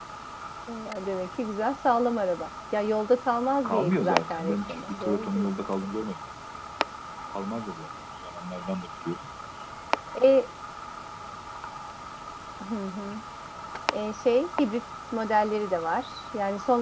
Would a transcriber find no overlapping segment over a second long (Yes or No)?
No